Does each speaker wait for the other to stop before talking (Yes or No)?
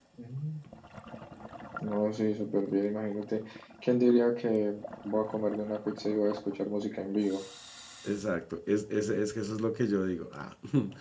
Yes